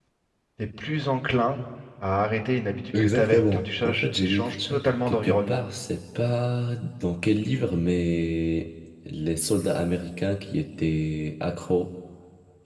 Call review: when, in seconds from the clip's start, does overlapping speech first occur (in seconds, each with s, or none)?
2.9 s